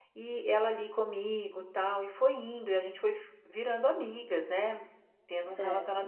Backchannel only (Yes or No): Yes